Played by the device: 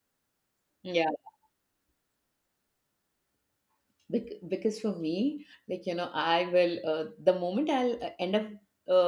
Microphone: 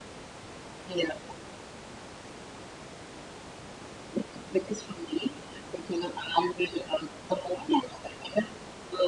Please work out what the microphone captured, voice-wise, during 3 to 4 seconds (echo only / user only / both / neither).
neither